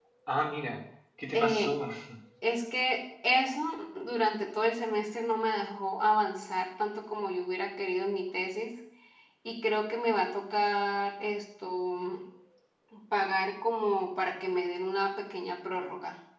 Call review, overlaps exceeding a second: none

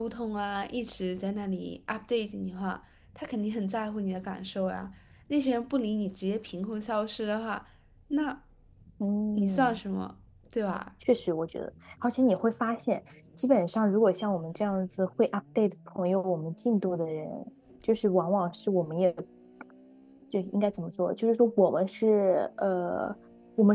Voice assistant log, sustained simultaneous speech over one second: none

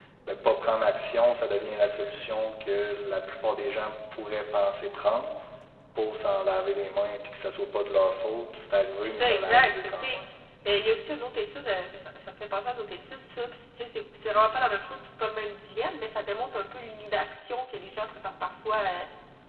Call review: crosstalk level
present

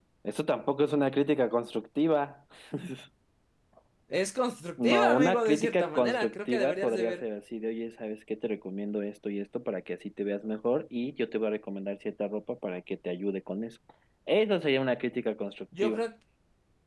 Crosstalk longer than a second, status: present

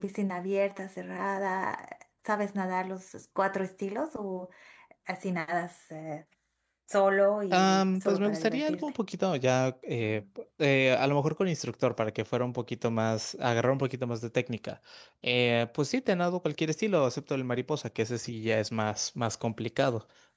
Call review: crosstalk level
present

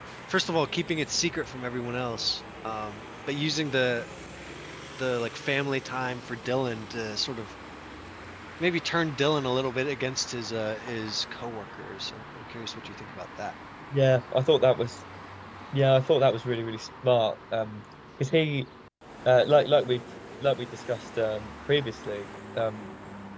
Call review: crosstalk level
none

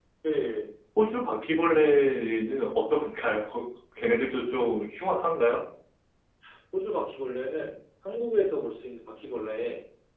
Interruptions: none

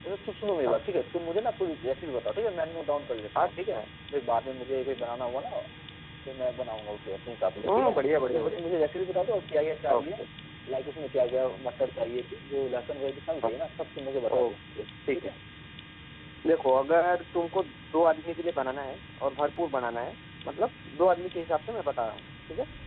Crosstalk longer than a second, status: none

